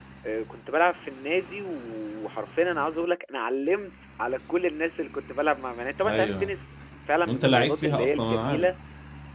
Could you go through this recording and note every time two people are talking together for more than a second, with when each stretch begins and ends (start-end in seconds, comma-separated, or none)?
7.2-8.7